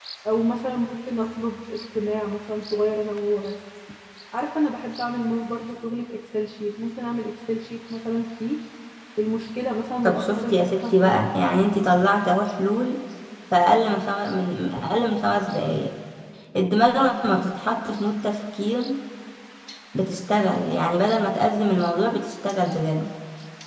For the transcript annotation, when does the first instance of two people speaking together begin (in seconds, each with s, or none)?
10.0 s